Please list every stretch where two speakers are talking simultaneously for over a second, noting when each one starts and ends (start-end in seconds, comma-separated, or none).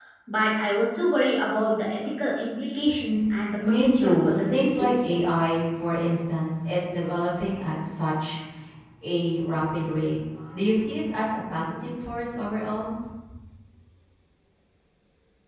3.7-5.1